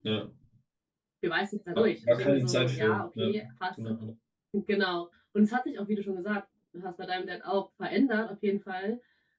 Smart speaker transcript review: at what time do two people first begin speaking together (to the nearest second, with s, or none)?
2 s